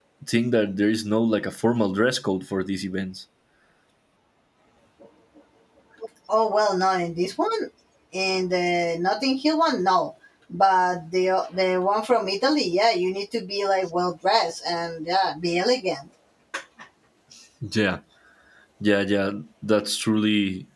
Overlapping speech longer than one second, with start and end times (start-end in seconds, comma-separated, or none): none